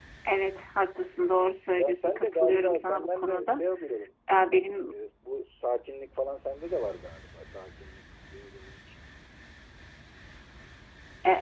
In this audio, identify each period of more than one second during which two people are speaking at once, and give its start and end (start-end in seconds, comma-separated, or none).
1.7-3.6